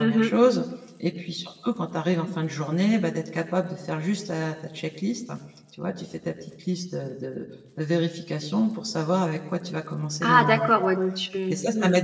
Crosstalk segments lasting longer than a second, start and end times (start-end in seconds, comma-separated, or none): none